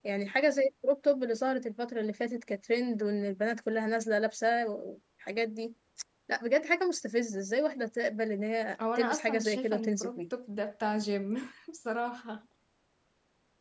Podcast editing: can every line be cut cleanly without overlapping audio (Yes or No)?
No